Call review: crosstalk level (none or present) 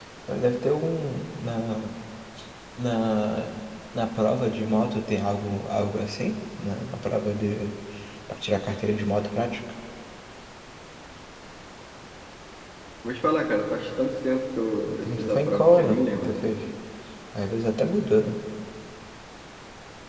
present